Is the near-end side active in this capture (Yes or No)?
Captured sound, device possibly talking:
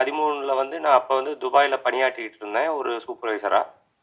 No